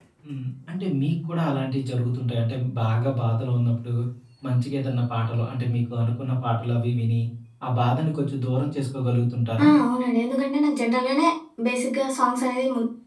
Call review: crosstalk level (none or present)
none